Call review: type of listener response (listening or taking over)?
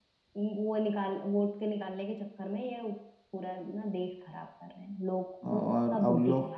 taking over